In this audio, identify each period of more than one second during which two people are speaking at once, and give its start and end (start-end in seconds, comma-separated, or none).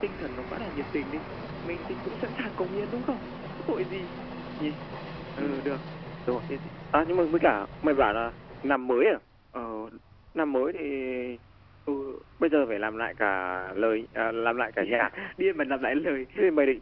none